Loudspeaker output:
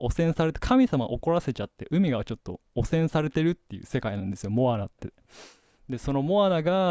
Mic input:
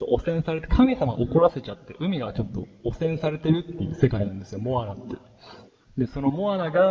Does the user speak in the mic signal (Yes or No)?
No